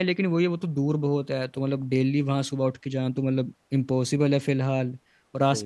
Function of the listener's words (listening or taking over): listening